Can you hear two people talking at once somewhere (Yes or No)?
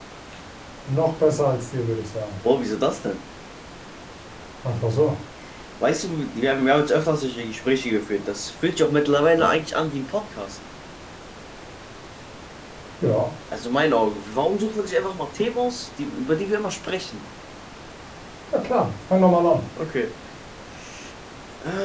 No